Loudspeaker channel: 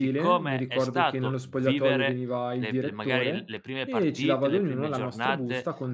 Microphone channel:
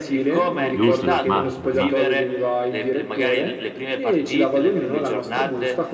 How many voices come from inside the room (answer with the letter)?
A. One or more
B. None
A